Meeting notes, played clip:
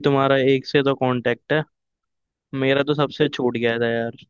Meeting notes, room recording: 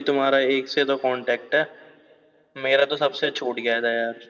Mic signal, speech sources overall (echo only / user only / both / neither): echo only